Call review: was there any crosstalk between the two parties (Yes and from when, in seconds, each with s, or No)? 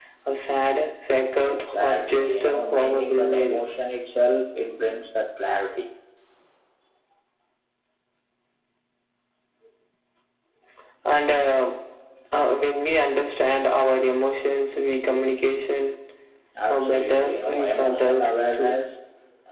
Yes, from 1.4 s